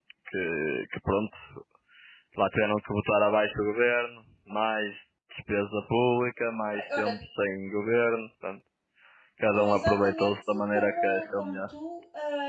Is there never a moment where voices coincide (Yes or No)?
No